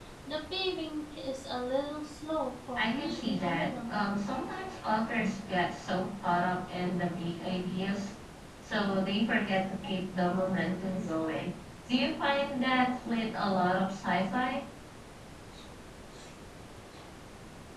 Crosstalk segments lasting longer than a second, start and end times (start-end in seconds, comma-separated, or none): 2.8-4.0